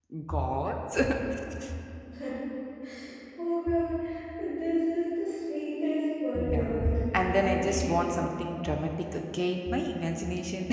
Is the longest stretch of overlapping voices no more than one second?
No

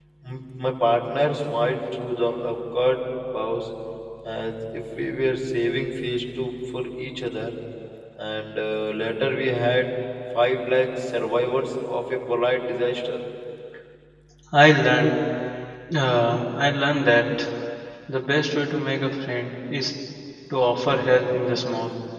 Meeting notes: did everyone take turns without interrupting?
Yes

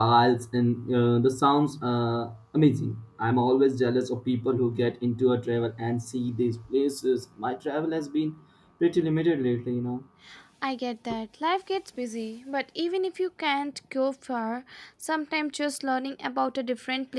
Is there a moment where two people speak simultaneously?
No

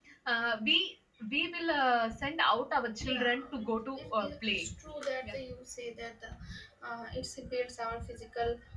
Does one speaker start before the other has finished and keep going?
Yes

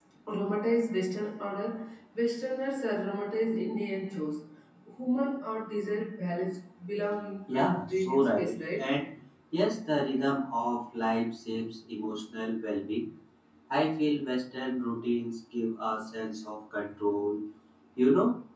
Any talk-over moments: Yes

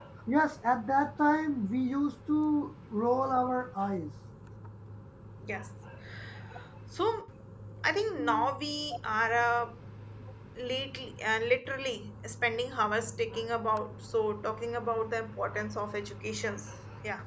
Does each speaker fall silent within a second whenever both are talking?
Yes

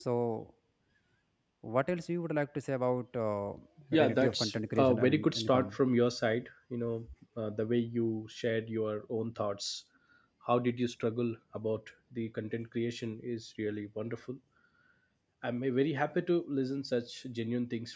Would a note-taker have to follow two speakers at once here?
Yes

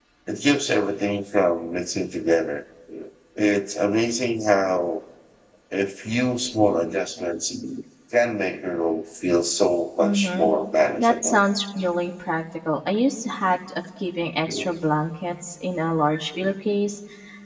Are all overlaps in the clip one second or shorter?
Yes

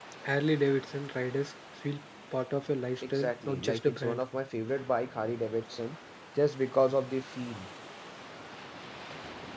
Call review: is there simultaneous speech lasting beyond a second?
Yes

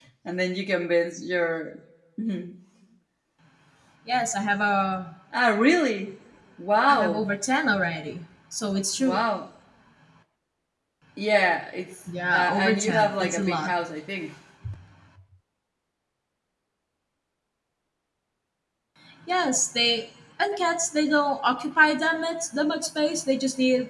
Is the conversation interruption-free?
No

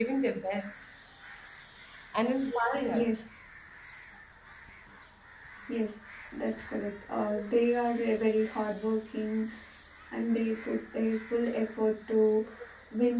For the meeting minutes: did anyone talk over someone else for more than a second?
No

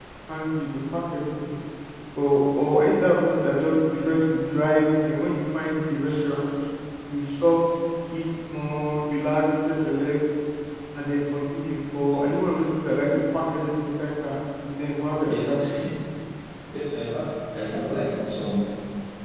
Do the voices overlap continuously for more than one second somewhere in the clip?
No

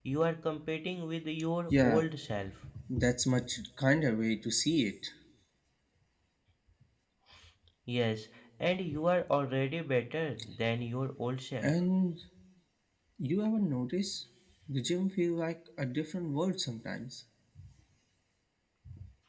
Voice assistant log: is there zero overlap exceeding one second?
Yes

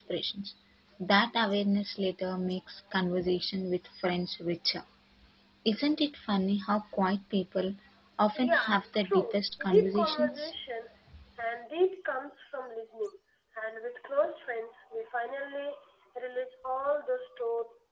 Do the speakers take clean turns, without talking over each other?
No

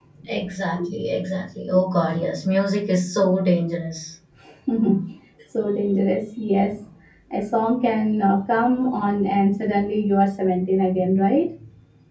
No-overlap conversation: Yes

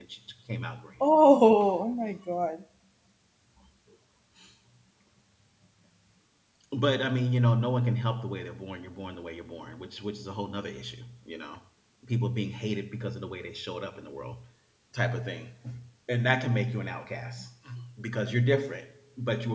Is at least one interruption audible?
No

